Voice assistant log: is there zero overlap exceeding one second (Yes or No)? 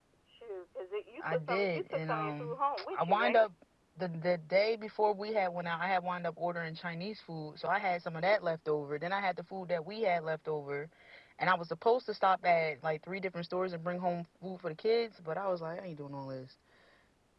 No